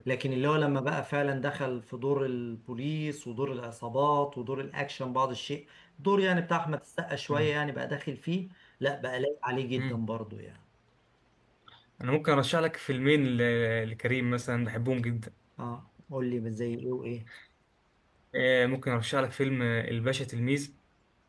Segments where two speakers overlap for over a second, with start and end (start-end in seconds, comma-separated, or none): none